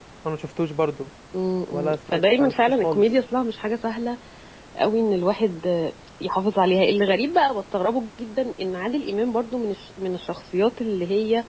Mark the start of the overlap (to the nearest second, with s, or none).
2 s